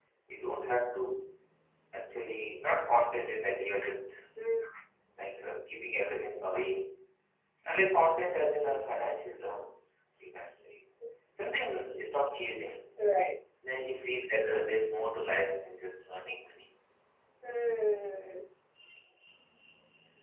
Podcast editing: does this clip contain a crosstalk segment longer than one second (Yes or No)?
No